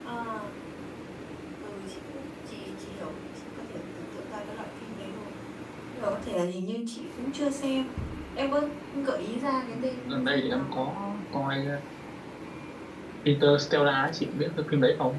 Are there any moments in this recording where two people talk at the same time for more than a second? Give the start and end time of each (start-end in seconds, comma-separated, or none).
9.7-10.9